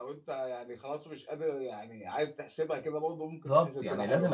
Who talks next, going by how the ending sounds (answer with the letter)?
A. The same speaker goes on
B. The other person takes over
B